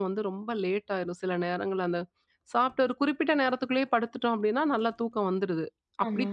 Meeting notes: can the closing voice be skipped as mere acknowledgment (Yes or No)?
Yes